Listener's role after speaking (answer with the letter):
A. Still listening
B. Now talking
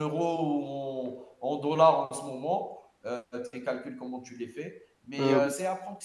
A